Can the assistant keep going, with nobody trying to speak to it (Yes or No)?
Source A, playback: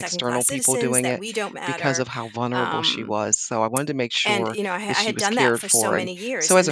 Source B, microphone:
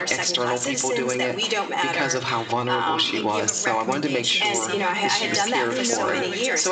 No